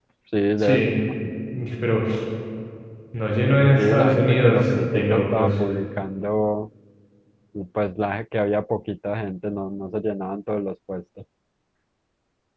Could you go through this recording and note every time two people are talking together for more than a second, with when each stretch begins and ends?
3.8-5.5

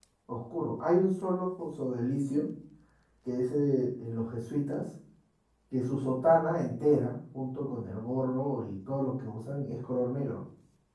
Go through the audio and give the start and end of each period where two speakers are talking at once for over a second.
none

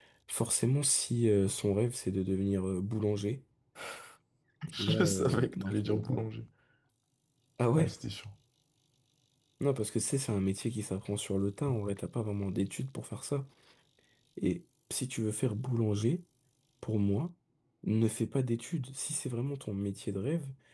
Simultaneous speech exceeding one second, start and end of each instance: 4.9-6.2

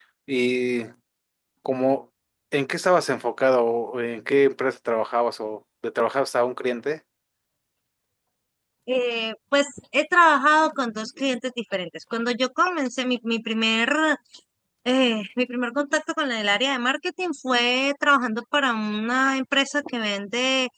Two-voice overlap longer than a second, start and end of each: none

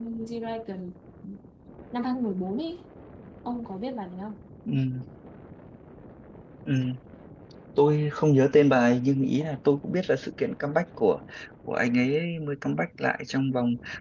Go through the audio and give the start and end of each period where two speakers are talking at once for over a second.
none

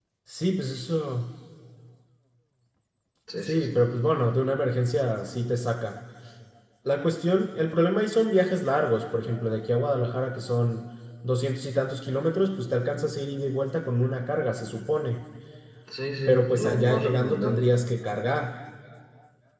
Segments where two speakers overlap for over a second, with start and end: 16.3-17.6

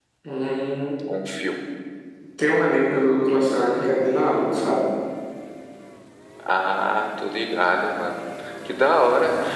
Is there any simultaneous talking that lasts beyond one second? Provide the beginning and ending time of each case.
none

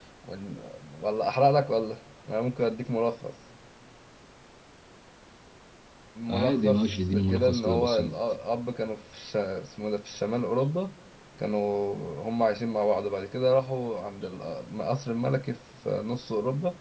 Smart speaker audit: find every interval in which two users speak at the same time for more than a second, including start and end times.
6.3-8.2

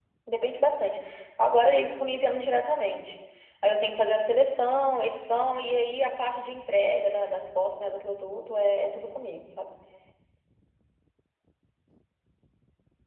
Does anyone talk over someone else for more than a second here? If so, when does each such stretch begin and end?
none

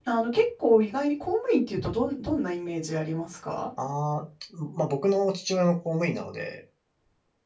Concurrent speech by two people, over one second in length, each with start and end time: none

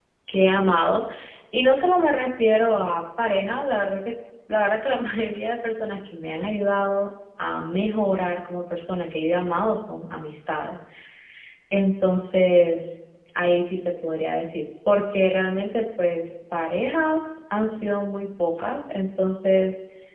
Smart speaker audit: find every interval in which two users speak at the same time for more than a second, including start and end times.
none

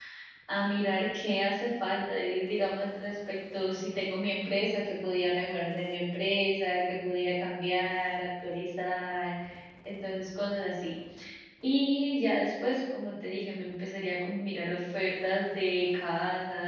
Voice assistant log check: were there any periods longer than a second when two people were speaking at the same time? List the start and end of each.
none

